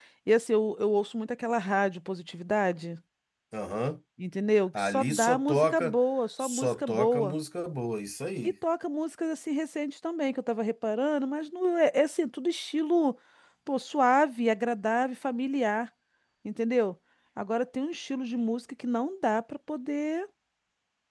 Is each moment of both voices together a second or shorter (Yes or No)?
No